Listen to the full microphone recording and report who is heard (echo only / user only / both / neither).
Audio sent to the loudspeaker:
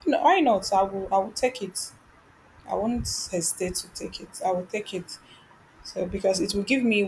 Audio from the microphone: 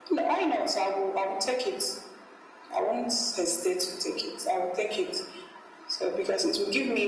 echo only